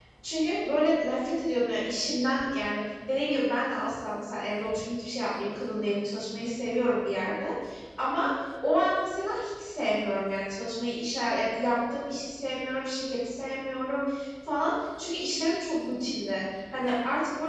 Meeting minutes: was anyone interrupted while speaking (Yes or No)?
No